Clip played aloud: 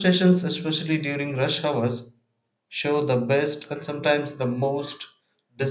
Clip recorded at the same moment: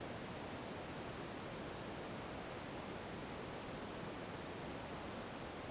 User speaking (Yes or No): No